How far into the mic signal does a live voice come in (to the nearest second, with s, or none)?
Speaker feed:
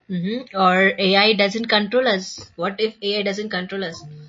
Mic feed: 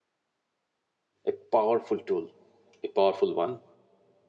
1 s